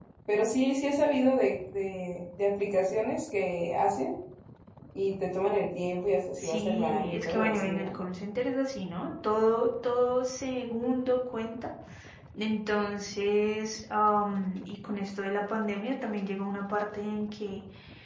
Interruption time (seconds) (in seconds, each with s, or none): 6.4 s